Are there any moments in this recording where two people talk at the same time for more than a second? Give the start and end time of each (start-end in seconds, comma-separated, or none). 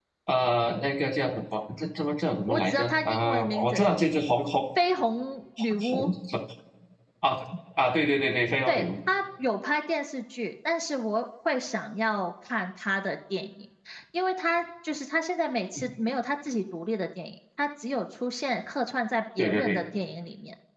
2.5-3.9